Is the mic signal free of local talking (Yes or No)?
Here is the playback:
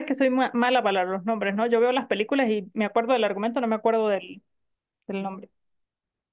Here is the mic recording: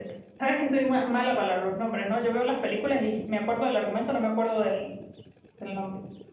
Yes